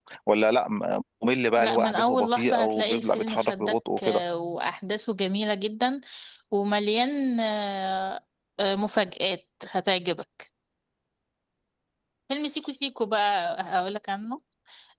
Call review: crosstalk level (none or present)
present